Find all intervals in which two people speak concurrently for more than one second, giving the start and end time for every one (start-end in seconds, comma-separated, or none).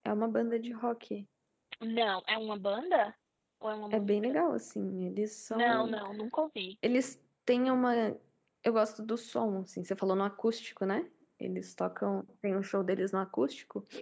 none